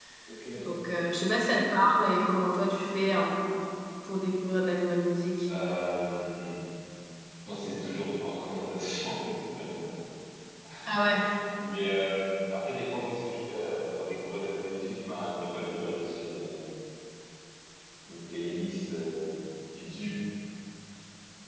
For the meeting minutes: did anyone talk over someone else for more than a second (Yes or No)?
No